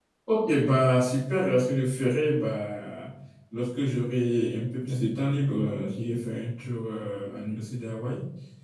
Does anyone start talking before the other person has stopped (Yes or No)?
No